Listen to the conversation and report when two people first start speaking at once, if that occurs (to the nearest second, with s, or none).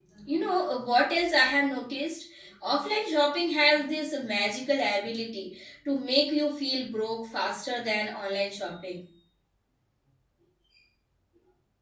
none